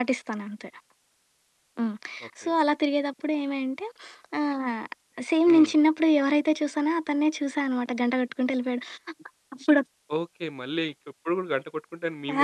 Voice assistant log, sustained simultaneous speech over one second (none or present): none